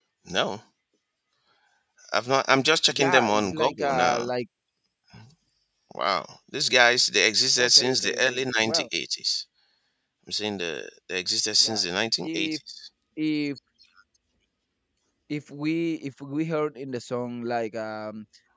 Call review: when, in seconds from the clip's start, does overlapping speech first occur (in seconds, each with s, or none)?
2.9 s